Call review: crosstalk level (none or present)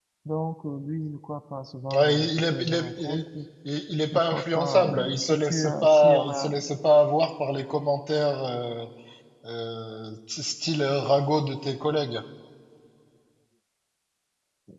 present